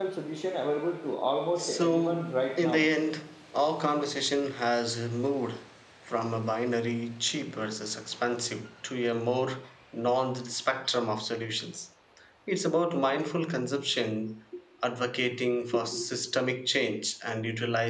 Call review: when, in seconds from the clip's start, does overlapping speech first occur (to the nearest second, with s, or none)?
2 s